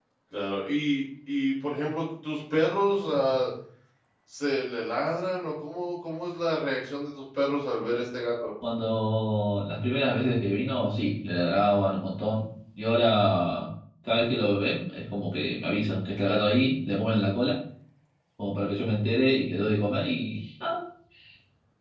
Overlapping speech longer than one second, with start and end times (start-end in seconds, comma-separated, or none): none